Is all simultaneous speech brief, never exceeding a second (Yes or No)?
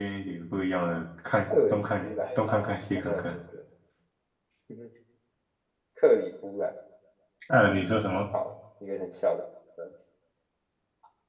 No